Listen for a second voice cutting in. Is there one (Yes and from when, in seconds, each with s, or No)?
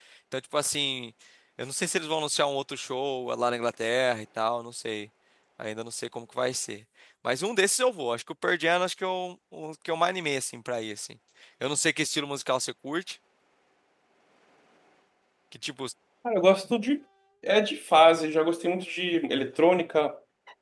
No